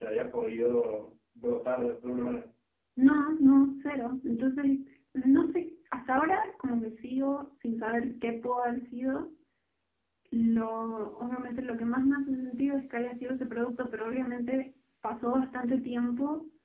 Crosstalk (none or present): none